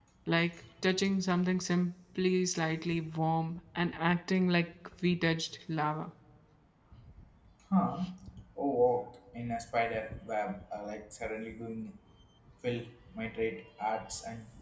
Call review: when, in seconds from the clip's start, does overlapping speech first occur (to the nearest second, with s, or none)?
none